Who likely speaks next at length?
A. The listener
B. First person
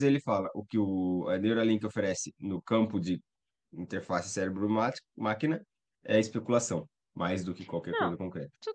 A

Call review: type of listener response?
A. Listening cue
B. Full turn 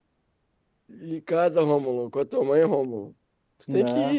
A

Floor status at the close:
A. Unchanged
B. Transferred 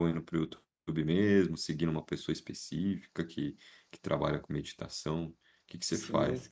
B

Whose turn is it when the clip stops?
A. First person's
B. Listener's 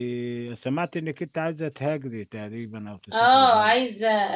B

